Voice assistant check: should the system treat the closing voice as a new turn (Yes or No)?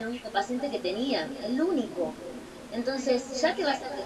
No